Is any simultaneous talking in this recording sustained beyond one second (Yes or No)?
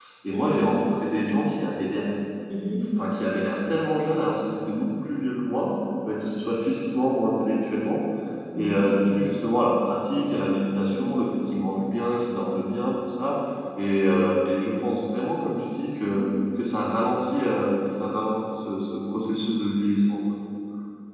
No